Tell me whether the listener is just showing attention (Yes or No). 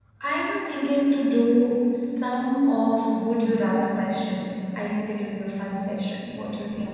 No